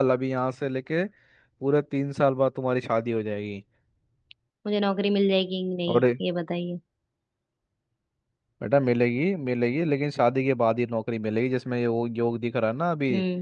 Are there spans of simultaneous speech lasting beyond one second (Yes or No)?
No